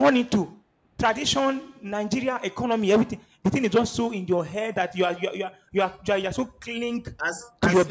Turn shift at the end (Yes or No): Yes